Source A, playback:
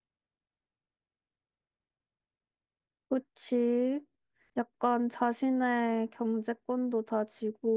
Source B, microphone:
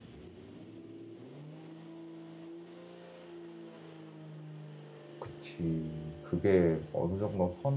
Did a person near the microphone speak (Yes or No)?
Yes